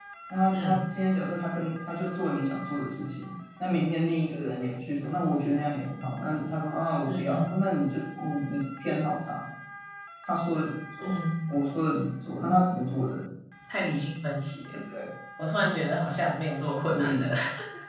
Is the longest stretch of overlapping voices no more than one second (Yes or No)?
Yes